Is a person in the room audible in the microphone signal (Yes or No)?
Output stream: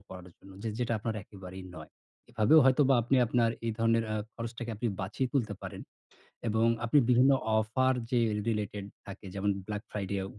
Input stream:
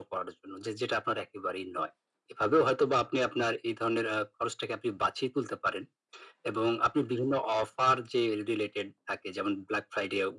No